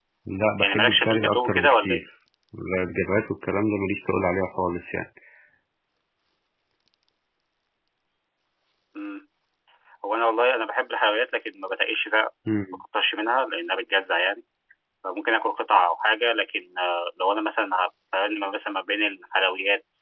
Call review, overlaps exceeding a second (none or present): present